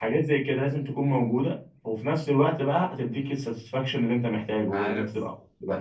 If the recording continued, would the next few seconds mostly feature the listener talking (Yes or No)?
Yes